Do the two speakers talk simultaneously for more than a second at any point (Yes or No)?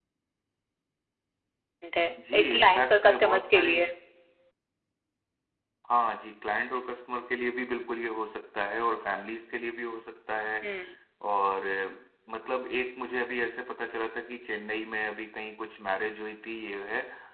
Yes